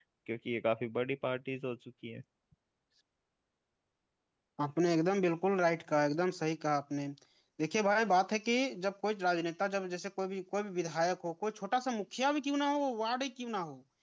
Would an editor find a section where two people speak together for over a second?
No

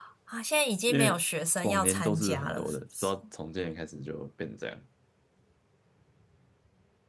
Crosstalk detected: Yes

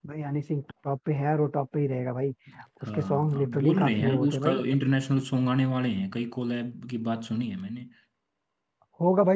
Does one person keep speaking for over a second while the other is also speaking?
Yes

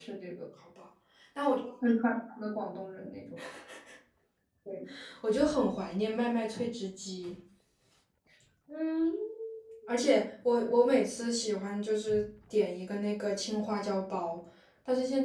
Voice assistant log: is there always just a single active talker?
Yes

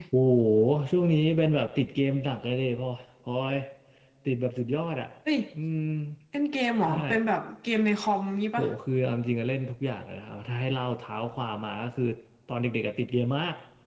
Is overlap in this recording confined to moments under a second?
Yes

